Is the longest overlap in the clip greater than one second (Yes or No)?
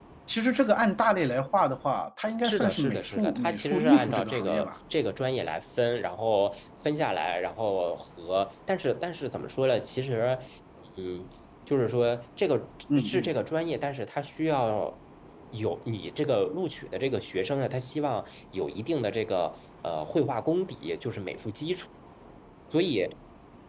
Yes